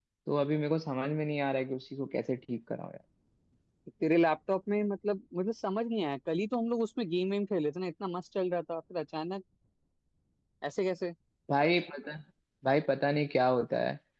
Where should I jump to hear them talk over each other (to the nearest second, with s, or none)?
none